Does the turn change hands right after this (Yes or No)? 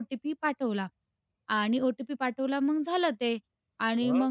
No